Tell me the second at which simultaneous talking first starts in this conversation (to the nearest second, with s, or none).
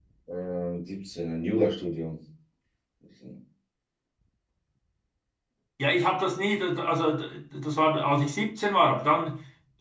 none